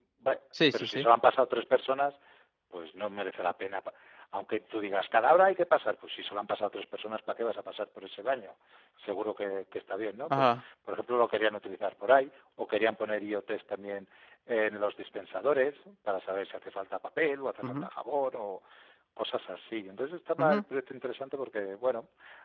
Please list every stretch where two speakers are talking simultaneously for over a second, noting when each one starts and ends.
none

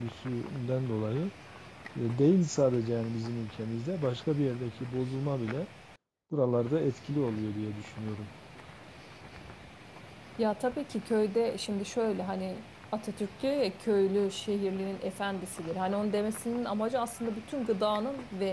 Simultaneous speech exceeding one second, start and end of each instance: none

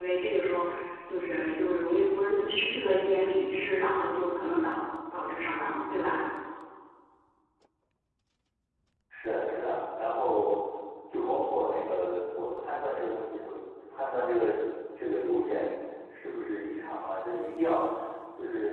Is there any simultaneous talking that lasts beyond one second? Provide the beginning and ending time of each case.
none

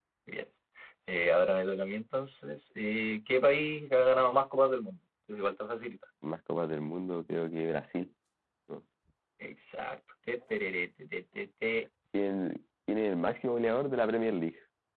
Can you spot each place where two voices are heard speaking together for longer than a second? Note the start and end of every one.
none

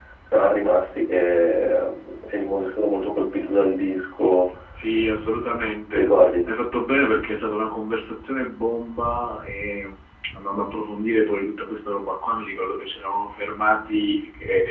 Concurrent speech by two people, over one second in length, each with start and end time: none

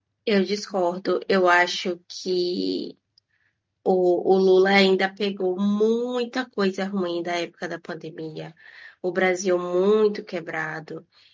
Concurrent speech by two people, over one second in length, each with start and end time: none

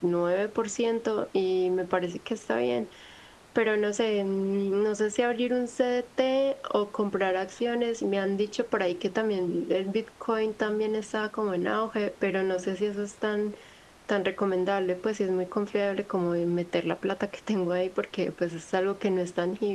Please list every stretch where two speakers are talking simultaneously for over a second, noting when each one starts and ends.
none

